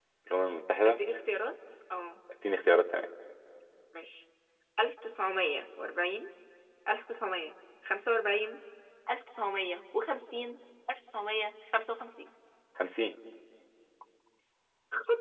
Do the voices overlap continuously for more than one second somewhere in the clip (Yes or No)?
No